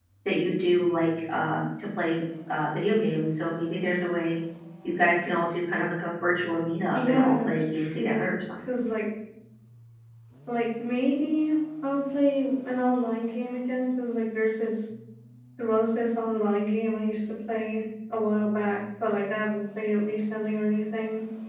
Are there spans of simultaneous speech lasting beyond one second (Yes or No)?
Yes